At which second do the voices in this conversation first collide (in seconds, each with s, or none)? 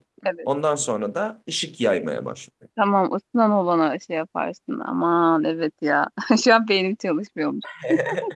none